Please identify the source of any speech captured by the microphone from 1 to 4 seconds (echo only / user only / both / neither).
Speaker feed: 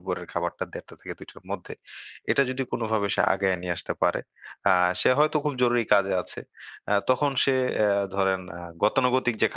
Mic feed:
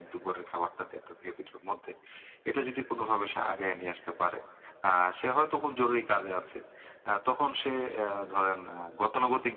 echo only